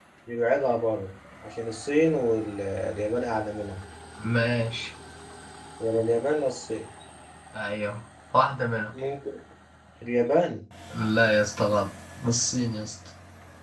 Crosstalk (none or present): none